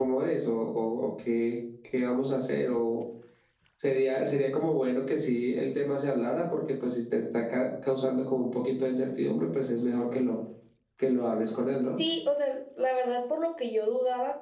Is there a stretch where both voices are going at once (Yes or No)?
No